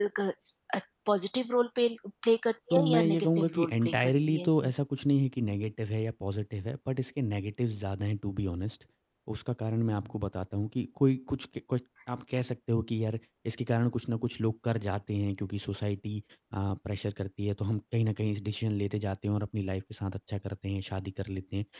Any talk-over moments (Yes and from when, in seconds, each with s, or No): Yes, from 2.7 s